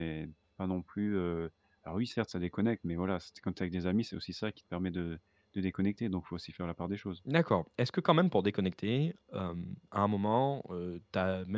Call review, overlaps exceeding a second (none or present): none